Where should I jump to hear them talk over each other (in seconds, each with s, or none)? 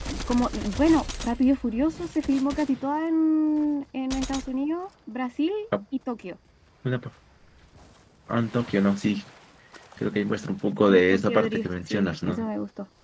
10.9 s